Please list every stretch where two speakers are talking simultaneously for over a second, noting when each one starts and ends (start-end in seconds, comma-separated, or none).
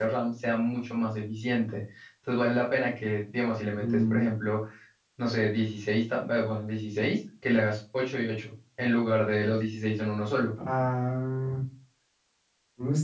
none